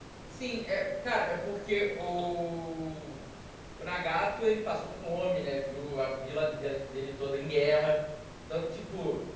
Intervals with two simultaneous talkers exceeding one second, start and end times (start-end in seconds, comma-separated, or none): none